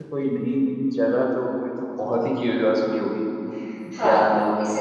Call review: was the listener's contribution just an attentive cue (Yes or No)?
No